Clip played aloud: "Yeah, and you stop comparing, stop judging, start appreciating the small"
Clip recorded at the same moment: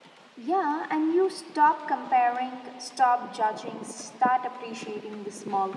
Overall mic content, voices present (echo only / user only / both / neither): echo only